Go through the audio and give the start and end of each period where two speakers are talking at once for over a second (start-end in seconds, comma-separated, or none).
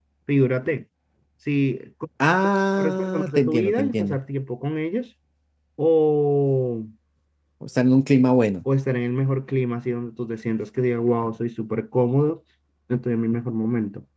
2.8-4.2